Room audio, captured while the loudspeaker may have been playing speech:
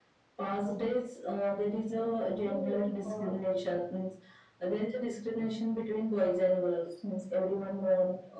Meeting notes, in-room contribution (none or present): present